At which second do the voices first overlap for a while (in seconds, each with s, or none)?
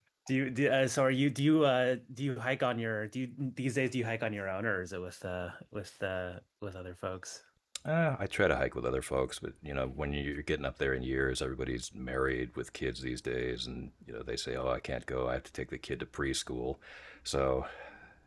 none